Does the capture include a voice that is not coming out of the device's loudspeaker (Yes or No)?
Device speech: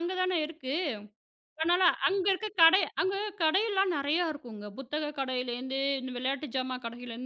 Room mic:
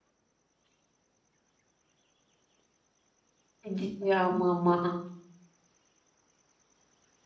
Yes